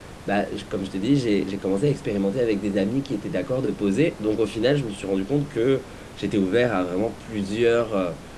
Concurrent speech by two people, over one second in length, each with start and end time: none

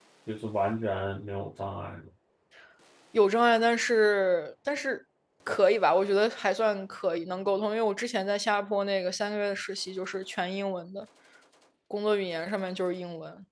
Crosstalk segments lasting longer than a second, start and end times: none

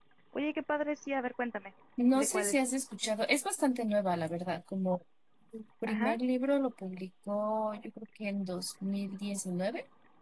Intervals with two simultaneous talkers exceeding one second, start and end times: none

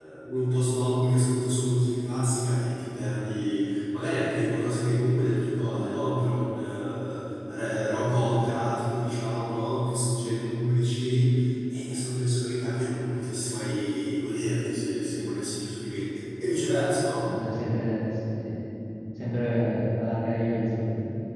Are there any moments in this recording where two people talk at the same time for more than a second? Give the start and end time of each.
none

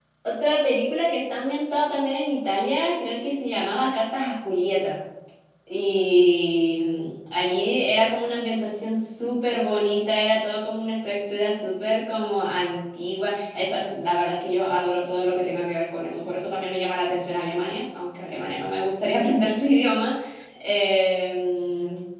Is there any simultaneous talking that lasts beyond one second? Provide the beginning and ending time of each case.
none

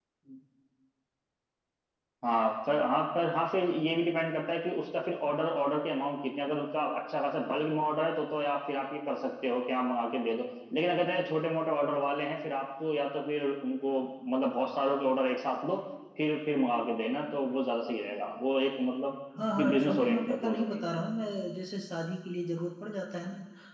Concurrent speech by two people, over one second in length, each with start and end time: 19.6-20.8

